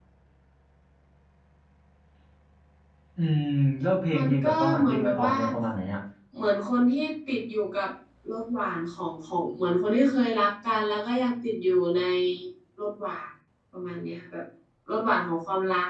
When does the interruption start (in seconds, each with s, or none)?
4.1 s